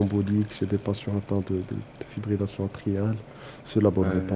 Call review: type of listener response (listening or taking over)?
taking over